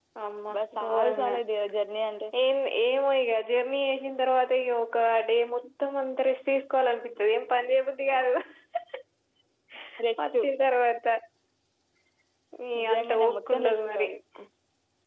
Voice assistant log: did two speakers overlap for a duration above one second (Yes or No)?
Yes